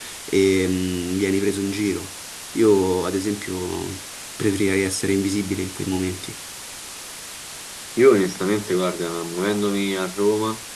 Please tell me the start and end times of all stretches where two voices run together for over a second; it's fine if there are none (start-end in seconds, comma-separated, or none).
none